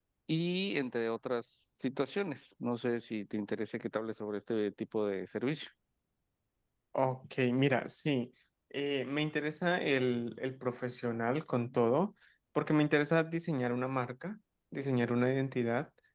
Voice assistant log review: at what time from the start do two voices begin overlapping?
none

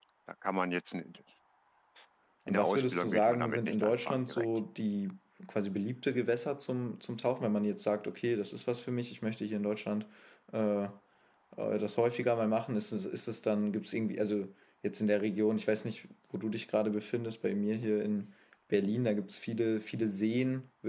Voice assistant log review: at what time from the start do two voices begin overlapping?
2.5 s

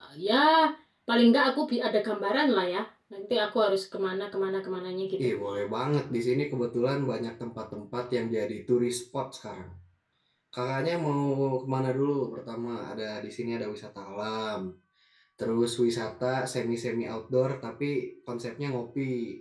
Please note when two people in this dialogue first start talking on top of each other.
none

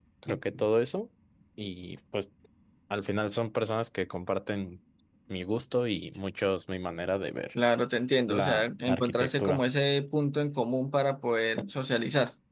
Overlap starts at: 8.3 s

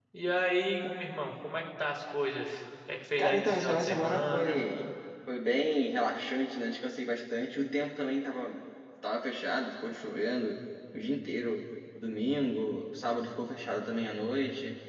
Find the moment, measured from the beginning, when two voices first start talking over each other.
3.2 s

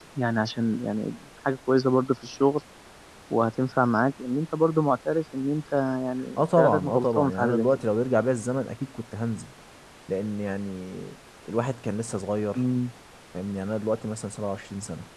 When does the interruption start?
6.4 s

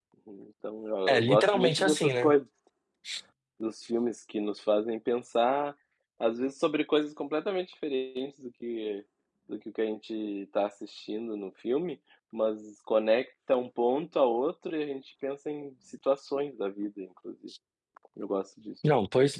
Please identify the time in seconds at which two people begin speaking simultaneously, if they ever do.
1.1 s

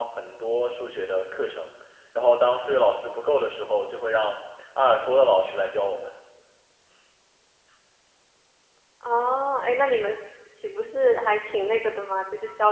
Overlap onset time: none

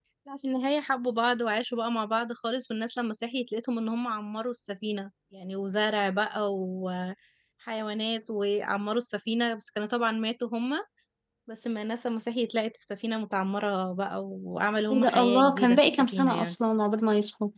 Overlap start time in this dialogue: 14.9 s

